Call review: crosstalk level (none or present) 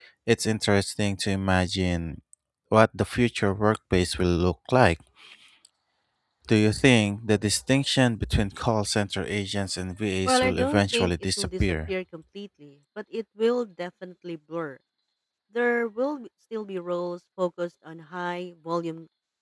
present